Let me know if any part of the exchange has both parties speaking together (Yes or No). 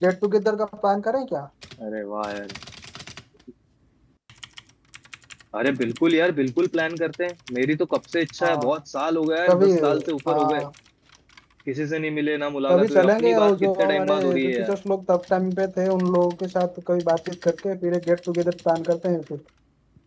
Yes